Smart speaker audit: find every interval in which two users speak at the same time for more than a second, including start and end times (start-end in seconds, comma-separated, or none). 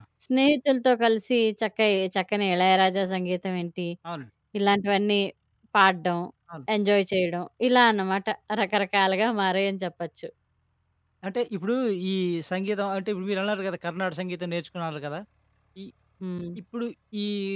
none